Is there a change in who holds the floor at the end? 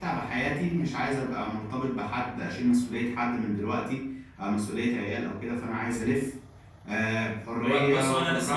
Yes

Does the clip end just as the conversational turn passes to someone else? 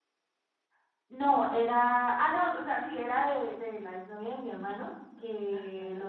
No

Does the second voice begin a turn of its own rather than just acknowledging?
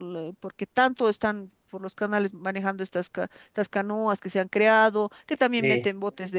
No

